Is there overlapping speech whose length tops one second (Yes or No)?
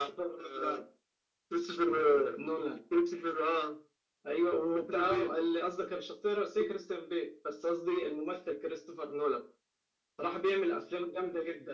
No